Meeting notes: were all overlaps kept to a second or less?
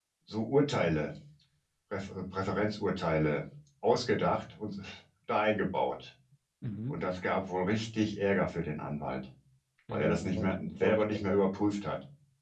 No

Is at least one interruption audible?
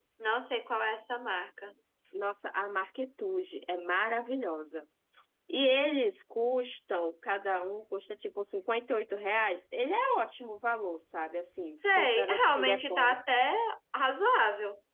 Yes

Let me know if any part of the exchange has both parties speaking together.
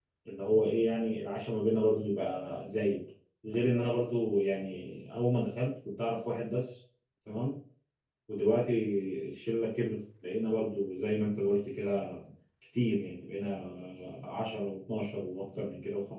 No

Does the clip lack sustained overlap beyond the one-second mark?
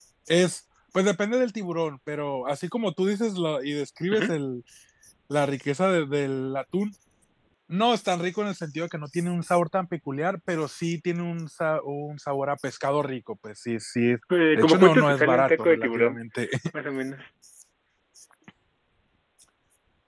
No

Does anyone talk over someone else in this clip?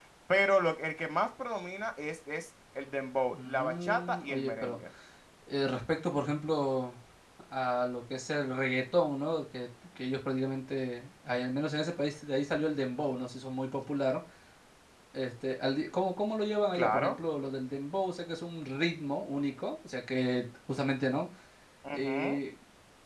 Yes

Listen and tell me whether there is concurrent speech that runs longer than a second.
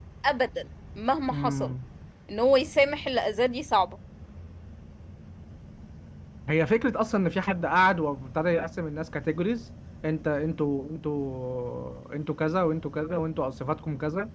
No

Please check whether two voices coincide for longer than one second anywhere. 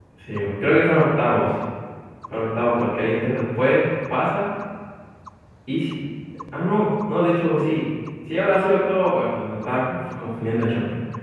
No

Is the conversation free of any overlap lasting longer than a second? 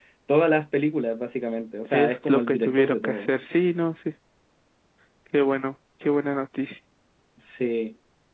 No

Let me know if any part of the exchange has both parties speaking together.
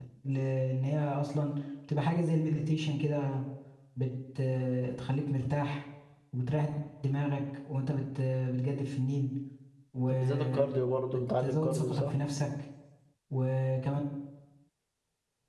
Yes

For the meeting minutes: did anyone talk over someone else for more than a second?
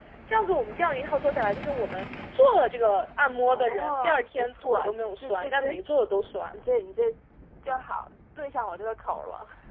Yes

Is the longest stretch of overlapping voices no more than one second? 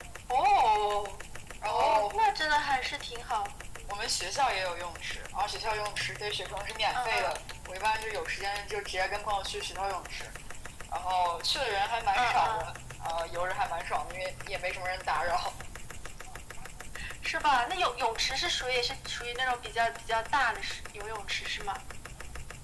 Yes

